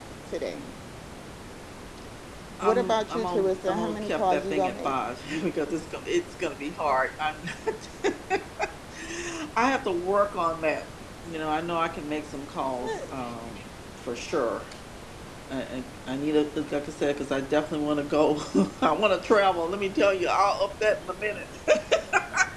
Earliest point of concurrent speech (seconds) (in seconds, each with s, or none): 2.6 s